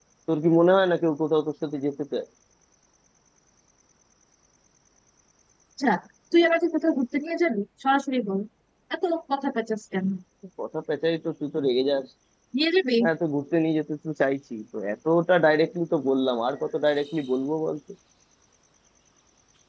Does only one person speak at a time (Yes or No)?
Yes